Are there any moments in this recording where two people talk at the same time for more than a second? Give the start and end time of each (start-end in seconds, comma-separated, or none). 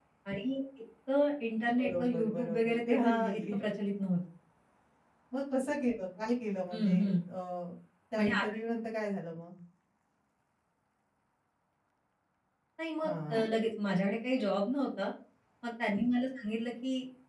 1.8-3.6